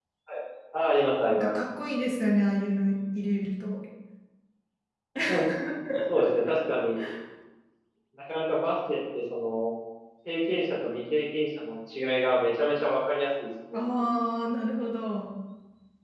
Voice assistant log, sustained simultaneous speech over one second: none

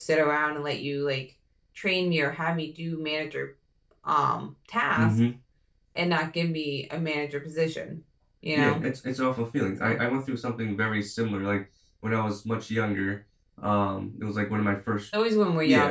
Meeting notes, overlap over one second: none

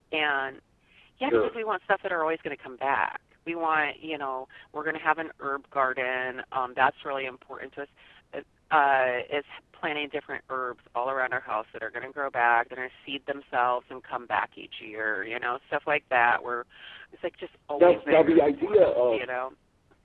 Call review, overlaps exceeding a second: present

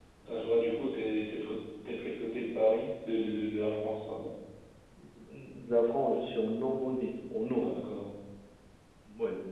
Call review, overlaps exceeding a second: none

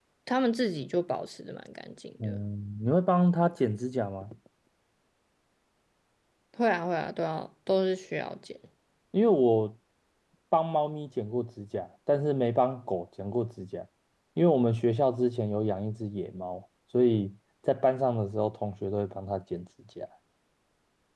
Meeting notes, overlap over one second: none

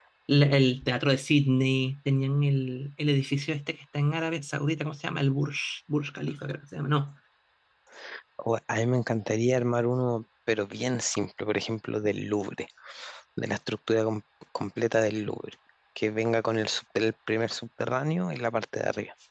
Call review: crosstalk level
none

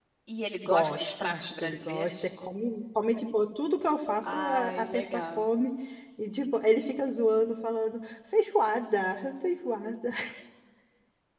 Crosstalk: present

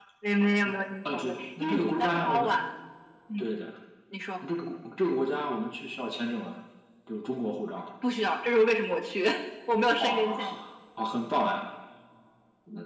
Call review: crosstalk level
present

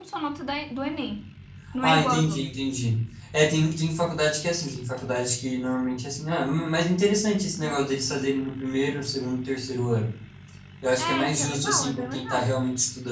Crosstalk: present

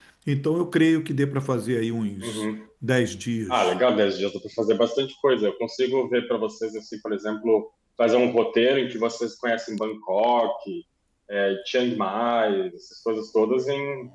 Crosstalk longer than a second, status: none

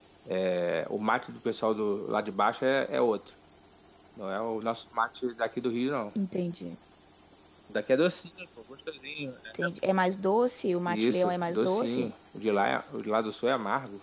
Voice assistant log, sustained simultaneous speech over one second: present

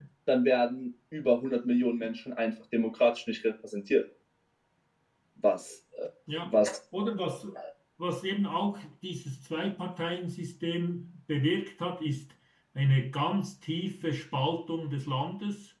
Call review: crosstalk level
none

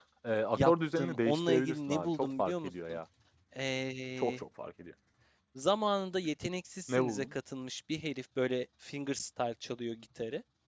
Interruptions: present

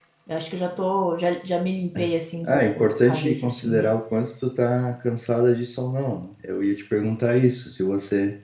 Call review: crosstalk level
present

